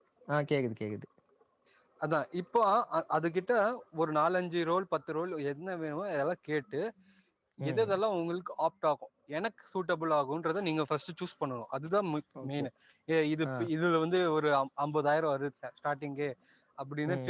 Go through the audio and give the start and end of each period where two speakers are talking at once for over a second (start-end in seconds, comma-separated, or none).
none